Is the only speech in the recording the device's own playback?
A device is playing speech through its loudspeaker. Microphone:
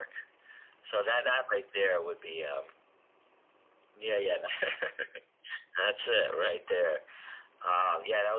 Yes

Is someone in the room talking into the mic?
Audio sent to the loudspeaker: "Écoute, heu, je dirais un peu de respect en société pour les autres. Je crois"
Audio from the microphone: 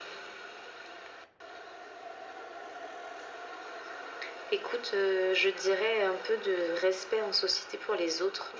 No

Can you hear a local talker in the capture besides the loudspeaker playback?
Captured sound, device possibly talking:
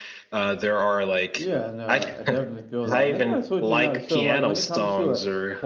Yes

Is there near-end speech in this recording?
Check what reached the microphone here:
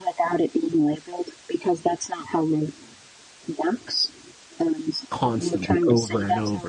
Yes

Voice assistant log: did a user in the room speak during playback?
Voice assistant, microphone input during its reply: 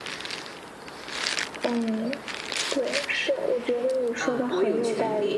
Yes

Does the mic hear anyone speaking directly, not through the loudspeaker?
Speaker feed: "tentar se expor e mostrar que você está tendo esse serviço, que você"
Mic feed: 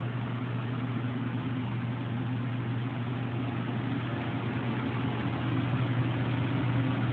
No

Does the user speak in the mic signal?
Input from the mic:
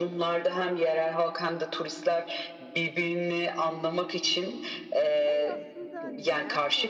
Yes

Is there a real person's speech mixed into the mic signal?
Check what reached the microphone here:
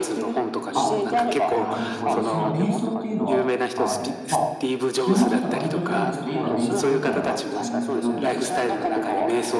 Yes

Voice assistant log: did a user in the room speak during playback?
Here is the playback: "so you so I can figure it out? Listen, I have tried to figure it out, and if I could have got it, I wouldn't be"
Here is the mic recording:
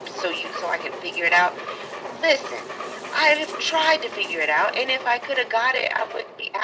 No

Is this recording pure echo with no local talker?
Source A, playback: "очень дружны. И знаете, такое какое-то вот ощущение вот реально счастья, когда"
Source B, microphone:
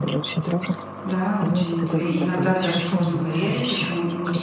No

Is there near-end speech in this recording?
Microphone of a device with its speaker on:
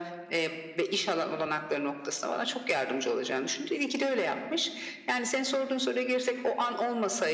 No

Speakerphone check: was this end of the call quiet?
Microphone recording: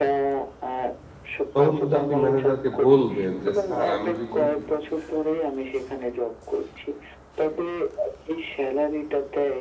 No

